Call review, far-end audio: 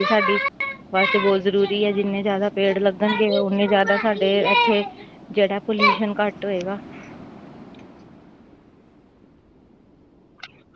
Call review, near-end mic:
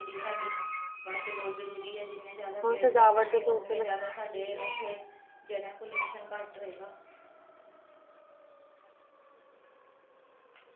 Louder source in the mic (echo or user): user